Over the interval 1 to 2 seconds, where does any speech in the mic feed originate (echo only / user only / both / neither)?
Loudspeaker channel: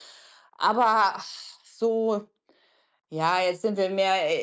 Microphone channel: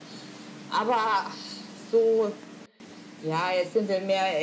echo only